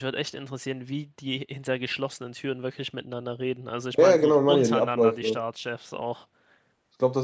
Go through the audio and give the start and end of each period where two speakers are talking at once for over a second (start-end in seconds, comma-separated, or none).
3.9-5.4